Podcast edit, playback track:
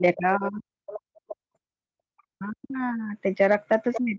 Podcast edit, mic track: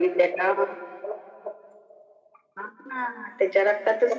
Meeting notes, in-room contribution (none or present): none